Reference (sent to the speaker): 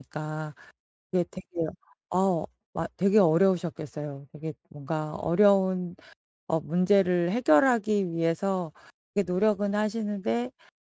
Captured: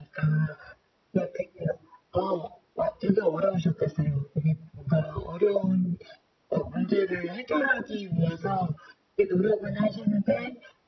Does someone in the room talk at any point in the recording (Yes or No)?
No